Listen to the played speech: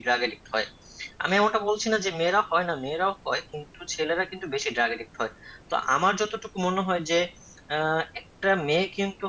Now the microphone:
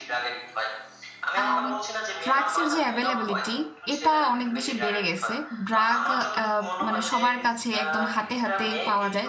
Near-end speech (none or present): present